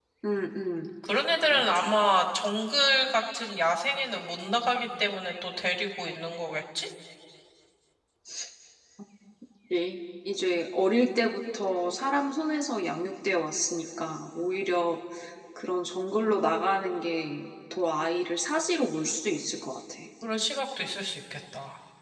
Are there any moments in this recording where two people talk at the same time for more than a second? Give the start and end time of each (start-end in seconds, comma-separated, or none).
none